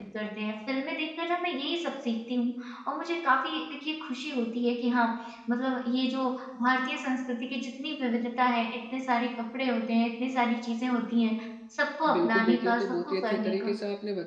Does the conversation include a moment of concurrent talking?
Yes, from 12.1 s

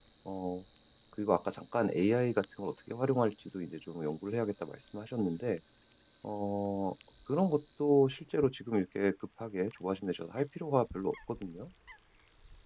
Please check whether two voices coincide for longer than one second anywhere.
No

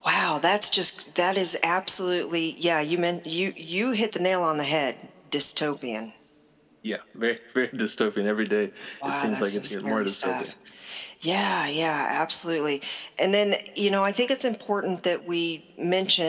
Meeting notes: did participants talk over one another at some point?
Yes, from 9.0 s

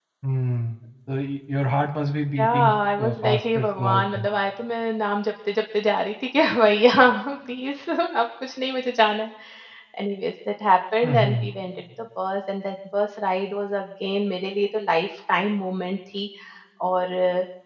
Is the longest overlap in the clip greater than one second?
Yes, from 2.4 s

